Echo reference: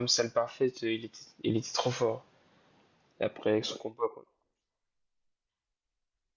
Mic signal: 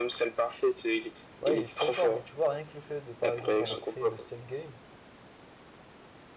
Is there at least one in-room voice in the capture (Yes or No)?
Yes